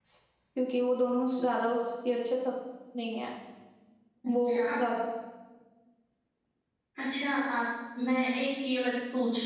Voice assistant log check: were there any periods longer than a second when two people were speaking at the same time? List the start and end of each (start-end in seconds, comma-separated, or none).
none